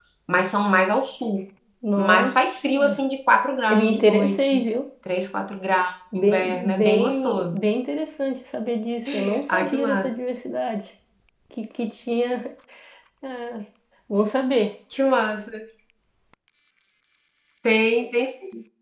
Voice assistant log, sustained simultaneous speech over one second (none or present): present